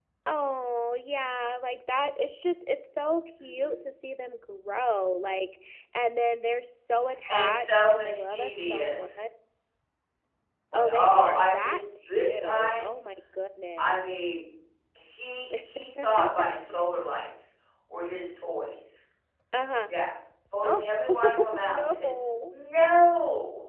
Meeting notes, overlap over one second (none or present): present